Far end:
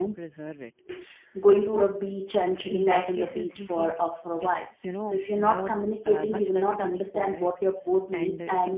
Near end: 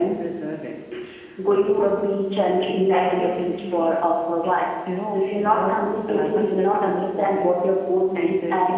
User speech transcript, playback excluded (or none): none